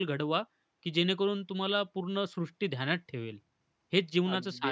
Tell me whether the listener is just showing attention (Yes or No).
No